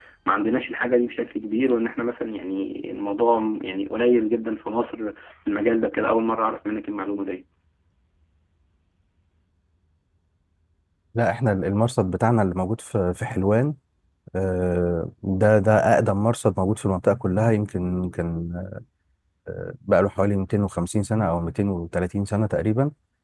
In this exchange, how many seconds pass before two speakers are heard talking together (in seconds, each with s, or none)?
none